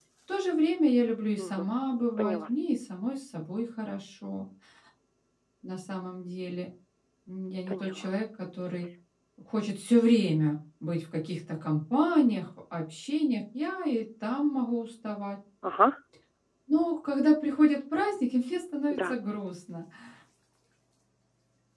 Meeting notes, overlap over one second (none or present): none